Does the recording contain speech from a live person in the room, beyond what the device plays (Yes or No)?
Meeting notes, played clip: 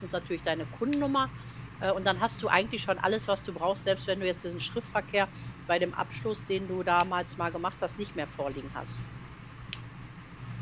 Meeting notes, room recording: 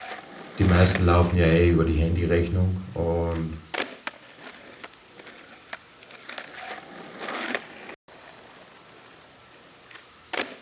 Yes